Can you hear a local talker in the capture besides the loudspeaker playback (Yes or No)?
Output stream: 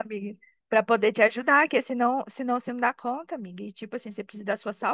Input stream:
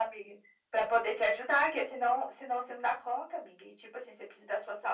No